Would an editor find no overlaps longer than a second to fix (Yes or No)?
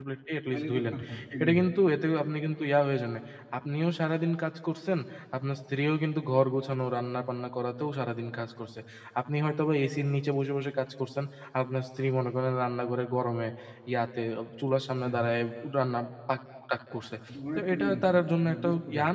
No